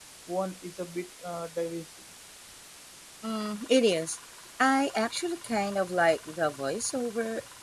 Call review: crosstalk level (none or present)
none